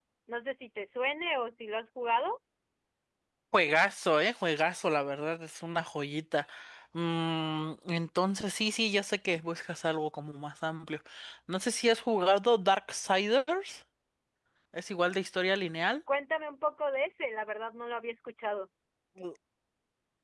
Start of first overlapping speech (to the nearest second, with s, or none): none